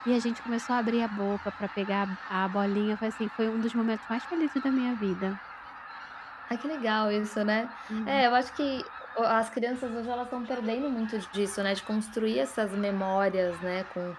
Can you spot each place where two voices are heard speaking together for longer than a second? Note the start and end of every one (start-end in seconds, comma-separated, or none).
none